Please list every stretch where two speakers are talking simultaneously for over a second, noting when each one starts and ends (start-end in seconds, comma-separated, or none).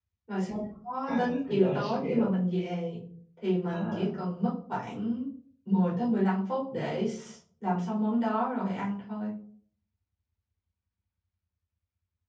1.1-2.3